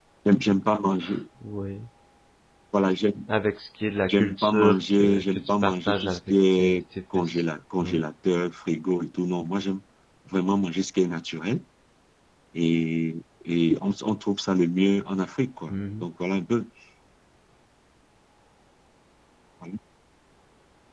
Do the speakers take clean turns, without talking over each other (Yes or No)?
No